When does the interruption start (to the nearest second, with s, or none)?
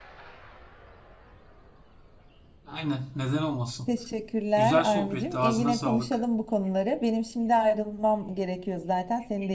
5 s